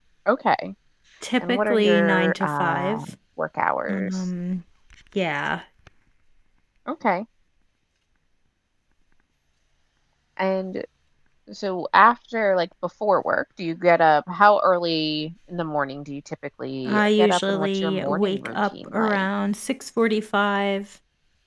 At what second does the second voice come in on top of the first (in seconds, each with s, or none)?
1.4 s